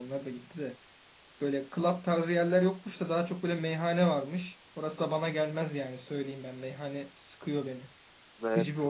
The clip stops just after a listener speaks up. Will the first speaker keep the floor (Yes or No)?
No